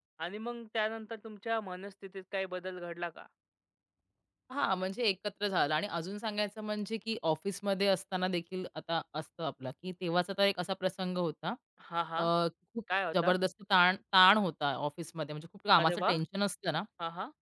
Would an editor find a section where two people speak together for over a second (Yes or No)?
No